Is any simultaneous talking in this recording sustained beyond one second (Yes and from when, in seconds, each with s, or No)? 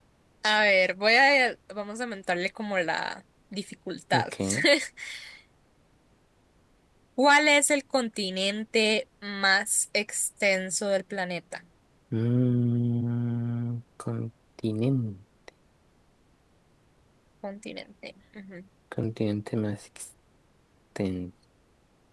No